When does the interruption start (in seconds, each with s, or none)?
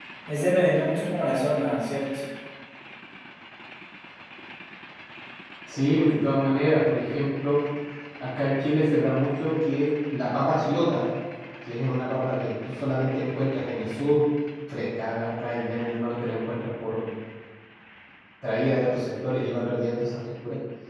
none